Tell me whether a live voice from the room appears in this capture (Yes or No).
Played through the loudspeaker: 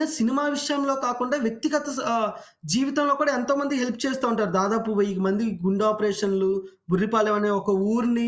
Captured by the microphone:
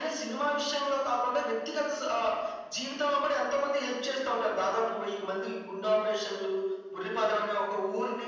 No